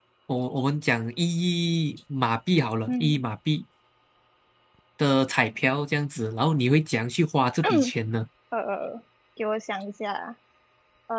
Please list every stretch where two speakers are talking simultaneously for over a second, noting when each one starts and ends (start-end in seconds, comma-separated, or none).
none